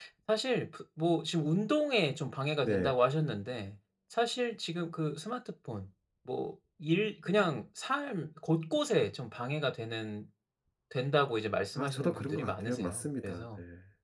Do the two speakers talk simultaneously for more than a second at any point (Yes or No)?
Yes